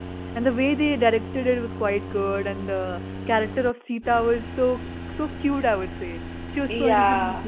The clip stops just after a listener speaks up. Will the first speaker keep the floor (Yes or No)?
No